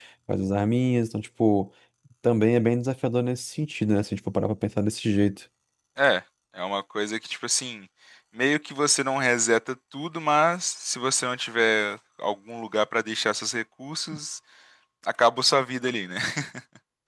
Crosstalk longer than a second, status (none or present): none